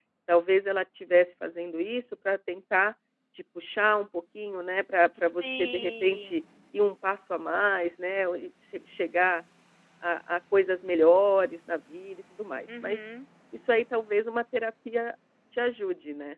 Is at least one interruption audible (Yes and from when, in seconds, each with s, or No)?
Yes, from 5.2 s